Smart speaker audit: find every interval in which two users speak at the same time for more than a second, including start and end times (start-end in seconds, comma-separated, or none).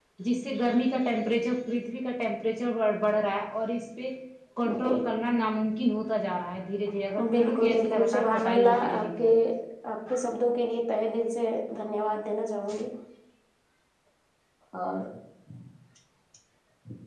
7.3-9.3